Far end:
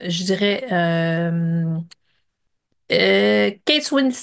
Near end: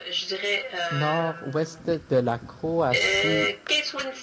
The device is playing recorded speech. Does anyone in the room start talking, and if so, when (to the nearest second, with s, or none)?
1 s